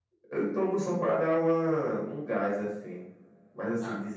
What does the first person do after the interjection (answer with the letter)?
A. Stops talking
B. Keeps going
B